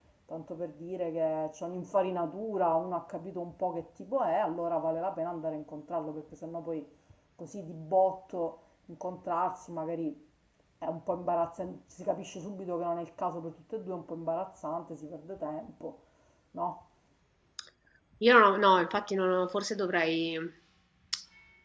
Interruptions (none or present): none